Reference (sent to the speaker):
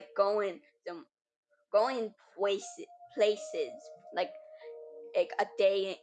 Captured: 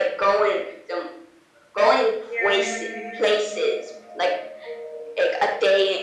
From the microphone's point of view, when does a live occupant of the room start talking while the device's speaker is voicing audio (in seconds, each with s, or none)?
2.1 s